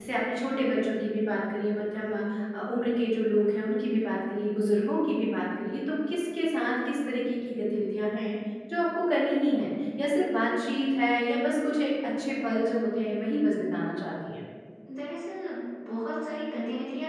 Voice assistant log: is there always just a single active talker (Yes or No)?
Yes